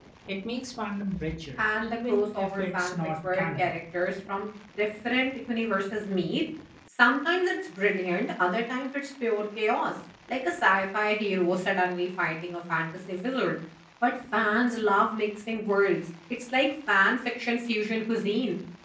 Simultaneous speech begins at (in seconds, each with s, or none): 1.6 s